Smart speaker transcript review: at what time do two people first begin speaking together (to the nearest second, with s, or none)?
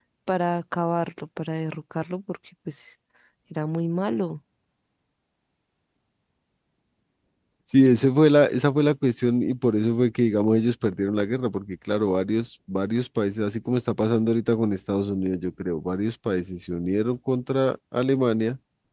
none